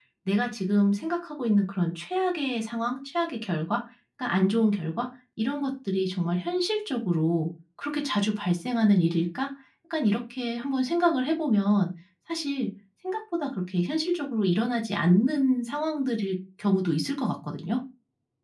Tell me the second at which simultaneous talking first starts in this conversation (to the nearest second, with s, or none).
none